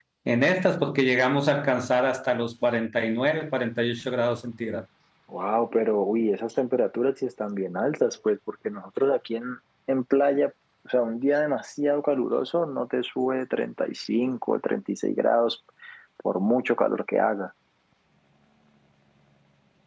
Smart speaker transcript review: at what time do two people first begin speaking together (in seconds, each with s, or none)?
none